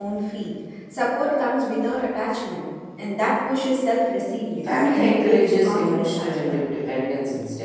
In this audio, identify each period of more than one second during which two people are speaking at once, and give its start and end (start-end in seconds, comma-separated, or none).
4.6-6.6